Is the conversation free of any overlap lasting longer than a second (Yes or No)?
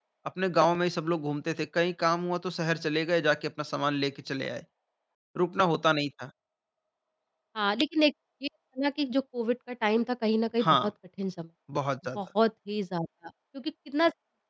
Yes